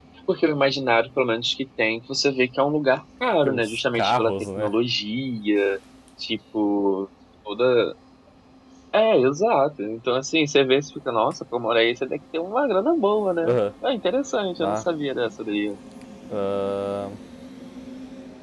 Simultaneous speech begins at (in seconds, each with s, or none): 3.4 s